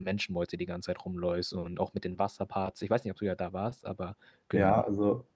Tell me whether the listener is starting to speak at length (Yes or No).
Yes